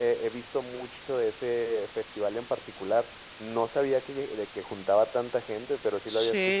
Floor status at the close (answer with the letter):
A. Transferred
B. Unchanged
A